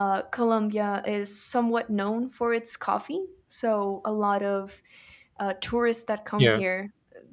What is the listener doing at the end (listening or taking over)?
listening